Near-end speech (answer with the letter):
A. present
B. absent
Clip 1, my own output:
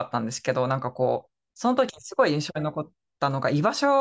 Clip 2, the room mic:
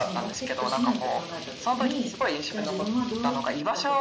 A